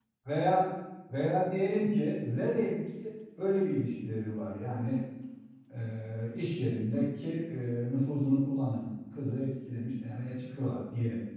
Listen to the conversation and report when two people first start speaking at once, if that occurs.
none

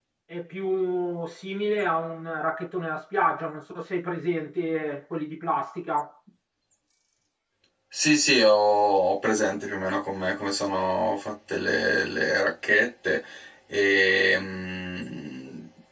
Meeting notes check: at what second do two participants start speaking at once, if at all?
none

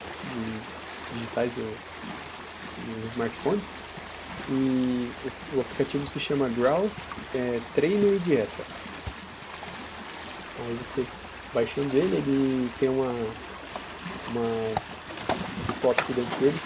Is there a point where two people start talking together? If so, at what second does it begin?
none

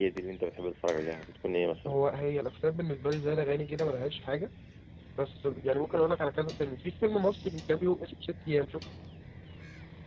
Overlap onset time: none

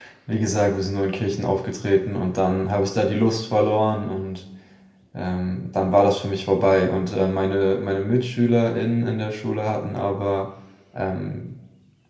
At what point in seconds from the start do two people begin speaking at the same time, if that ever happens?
none

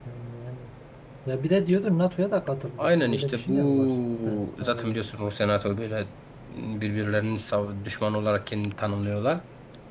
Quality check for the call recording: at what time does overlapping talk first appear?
2.8 s

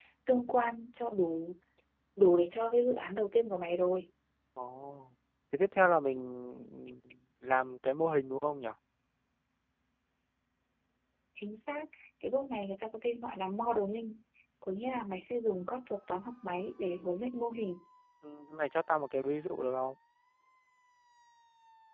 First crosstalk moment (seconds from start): none

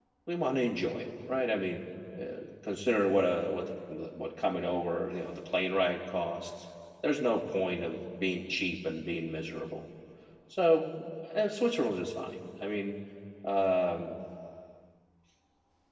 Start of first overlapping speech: none

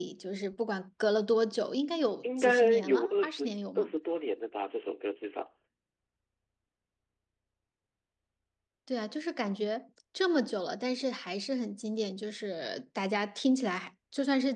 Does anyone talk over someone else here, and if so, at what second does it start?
2.2 s

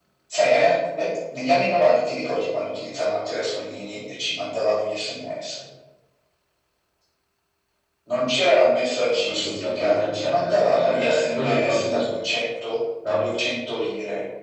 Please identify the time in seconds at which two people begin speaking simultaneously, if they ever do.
9.2 s

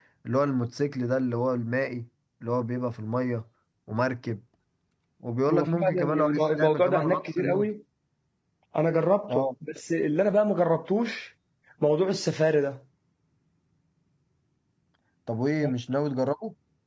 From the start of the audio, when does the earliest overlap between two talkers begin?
5.5 s

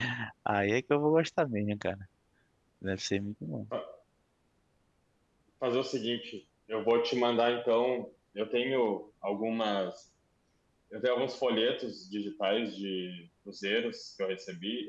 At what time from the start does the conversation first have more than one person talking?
none

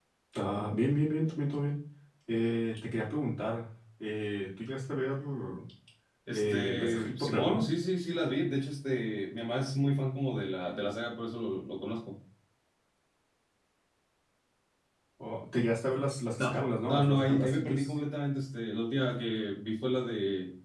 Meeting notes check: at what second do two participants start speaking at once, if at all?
6.3 s

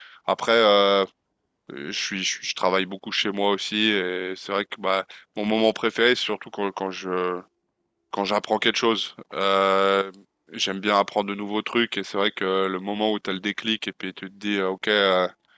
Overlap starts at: none

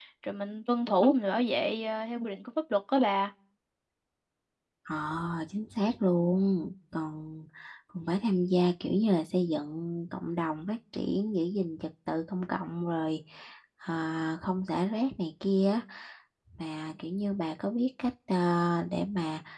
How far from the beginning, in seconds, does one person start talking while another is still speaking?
none

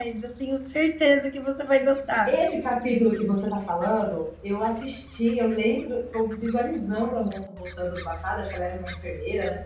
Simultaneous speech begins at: none

